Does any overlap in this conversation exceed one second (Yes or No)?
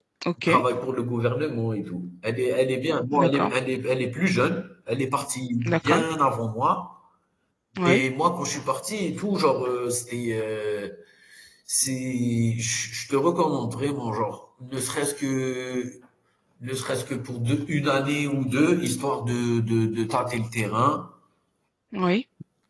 No